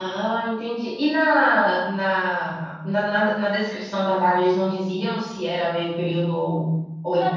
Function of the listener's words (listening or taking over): taking over